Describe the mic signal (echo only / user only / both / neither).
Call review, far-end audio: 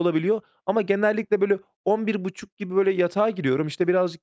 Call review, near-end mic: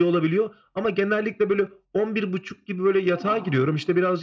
both